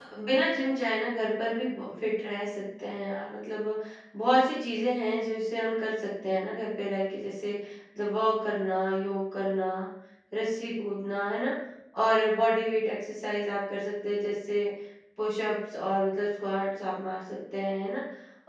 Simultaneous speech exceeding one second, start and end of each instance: none

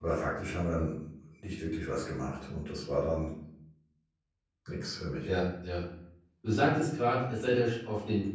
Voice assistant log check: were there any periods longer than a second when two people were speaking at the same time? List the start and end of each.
none

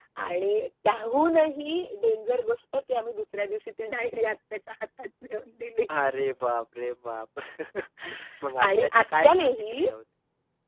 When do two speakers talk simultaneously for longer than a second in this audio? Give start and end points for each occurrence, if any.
8.6-9.9

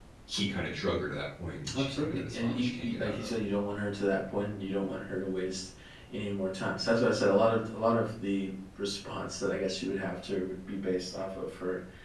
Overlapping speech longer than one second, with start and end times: 1.7-3.3

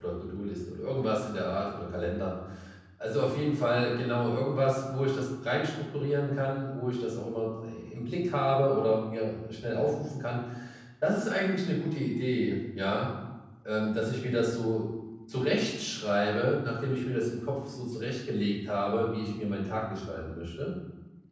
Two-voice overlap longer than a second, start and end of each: none

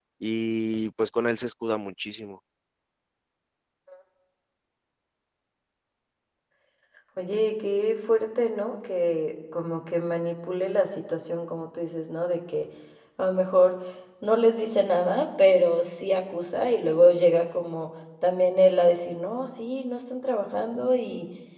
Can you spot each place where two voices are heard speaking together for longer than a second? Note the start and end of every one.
none

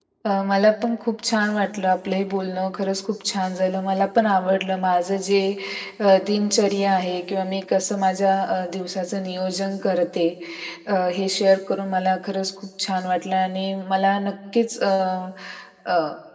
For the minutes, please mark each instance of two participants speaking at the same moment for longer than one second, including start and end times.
none

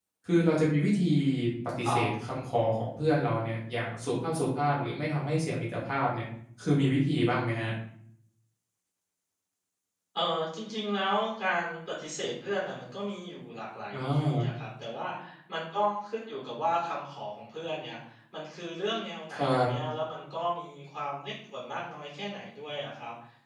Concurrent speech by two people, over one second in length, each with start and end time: none

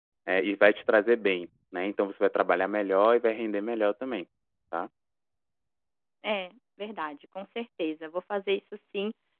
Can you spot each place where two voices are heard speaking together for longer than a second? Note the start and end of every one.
none

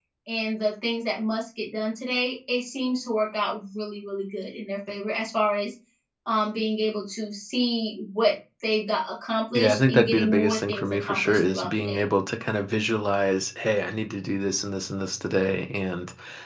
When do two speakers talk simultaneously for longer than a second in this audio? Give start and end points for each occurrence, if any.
9.5-12.1

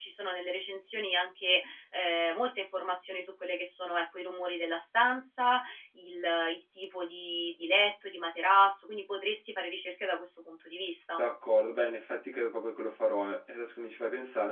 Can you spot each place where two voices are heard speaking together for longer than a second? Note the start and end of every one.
none

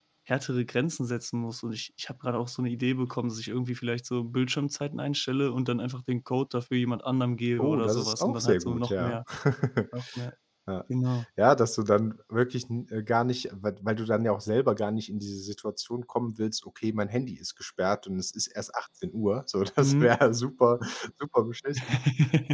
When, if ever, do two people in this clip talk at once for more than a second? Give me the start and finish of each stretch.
7.6-9.2

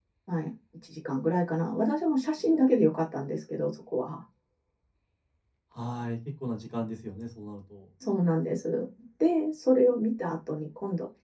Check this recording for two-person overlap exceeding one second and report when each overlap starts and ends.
none

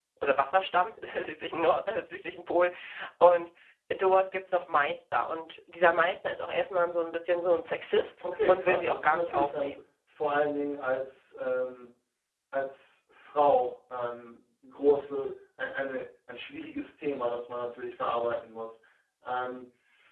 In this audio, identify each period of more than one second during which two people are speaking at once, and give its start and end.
8.5-9.8

